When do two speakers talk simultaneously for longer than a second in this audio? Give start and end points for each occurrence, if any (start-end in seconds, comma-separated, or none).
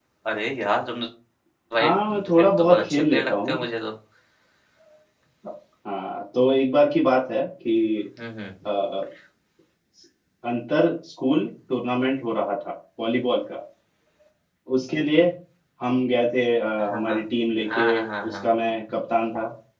1.8-3.6